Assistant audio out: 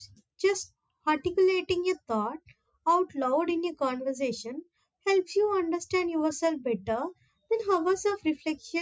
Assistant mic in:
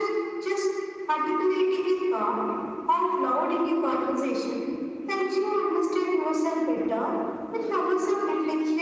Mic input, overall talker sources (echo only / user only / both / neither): echo only